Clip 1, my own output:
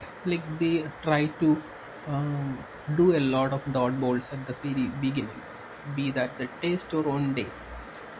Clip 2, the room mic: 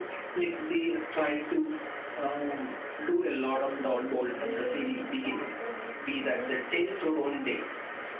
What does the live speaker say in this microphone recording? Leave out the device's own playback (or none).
I think every day we encounter new, new situations.